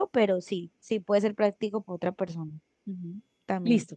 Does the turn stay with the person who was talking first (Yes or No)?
No